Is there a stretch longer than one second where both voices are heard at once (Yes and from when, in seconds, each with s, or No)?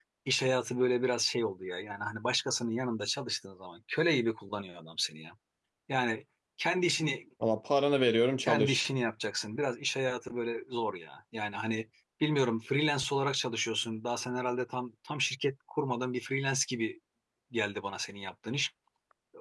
No